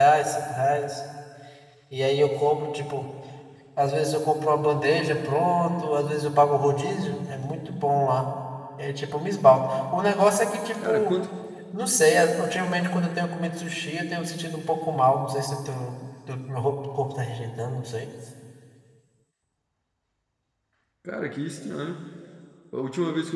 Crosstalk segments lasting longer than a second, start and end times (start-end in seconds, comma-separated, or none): none